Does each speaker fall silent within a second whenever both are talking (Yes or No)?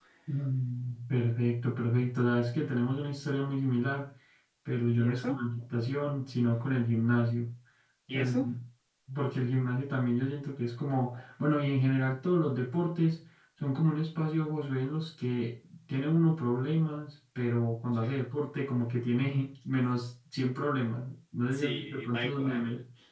No